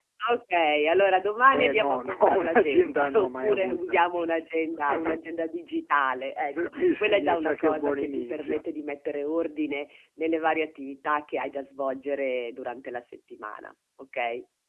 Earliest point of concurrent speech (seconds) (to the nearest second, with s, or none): 2 s